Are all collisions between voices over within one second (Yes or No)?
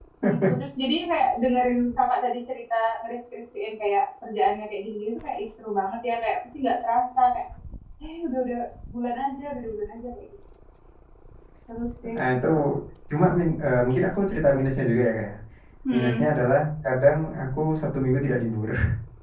Yes